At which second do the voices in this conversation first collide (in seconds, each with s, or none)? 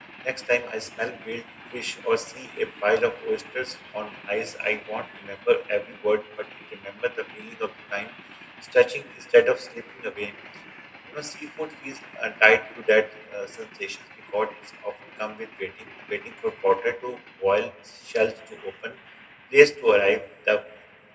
none